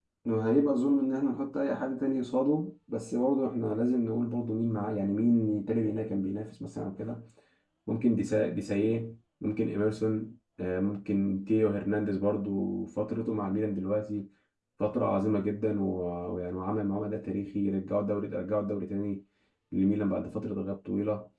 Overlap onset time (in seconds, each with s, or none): none